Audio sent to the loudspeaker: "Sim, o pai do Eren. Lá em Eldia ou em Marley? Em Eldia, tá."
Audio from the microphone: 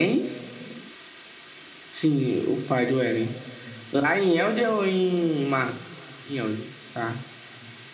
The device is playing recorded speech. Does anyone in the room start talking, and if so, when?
none

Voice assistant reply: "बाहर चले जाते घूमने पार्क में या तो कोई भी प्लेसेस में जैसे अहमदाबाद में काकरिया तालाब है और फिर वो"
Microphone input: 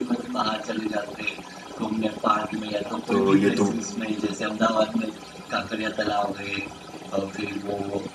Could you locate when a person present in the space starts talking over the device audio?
3.1 s

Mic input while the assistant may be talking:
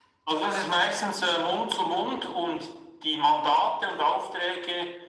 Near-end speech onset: none

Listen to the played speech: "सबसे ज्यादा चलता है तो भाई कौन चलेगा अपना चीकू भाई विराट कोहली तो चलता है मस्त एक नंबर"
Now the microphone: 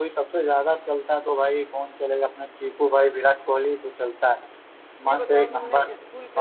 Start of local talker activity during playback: 5.0 s

